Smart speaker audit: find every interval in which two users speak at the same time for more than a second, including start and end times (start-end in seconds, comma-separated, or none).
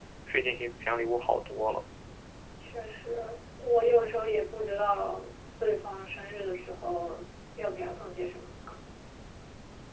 none